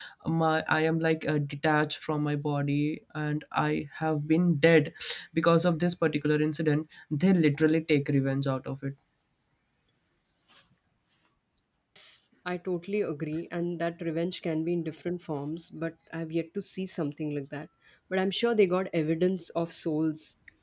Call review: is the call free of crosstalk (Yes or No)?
Yes